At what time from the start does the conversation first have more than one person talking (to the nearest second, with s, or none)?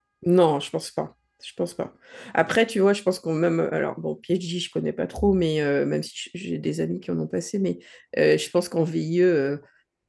none